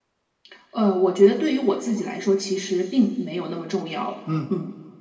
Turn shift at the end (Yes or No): Yes